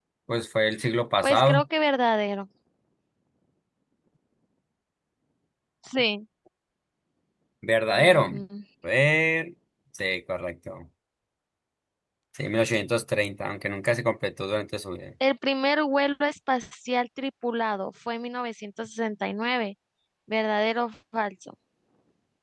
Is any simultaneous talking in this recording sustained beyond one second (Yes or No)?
No